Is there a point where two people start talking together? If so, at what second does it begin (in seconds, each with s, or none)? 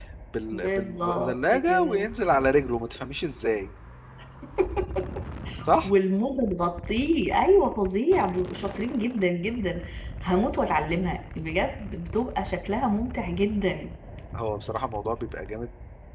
0.5 s